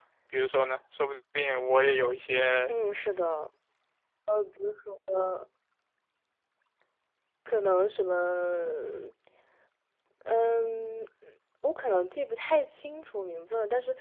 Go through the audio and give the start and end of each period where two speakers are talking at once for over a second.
none

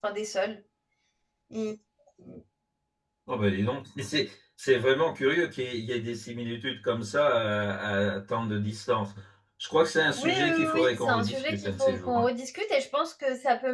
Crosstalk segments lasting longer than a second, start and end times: 10.2-12.3

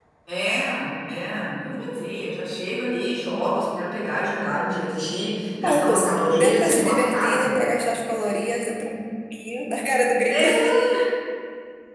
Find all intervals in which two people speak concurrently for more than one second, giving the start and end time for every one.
5.6-7.6

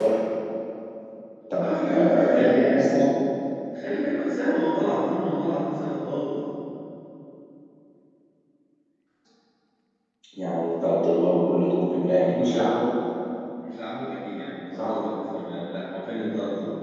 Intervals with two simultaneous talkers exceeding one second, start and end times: 1.6-2.8

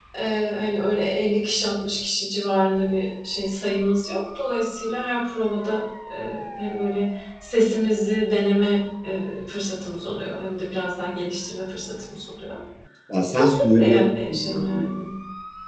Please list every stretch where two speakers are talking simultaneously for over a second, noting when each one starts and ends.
13.3-14.9

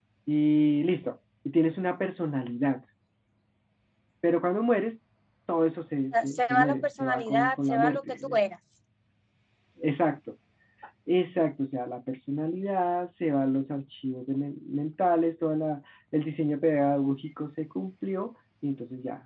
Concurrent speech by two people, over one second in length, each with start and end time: 6.1-8.4

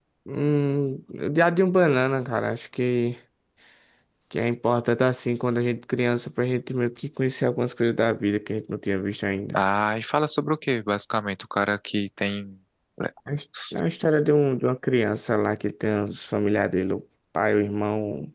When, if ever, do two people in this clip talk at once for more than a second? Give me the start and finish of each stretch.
none

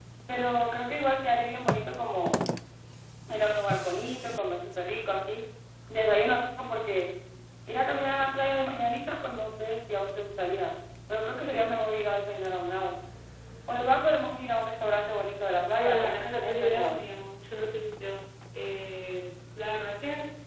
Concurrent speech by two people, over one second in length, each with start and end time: 15.8-17.0

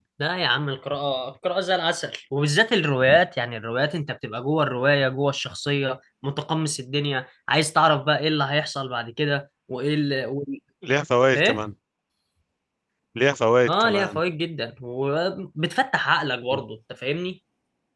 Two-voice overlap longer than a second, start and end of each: none

